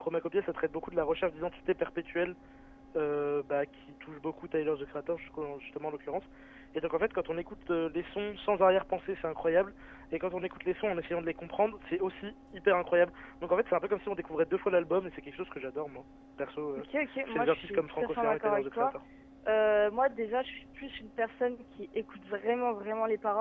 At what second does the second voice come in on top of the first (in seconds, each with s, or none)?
17.3 s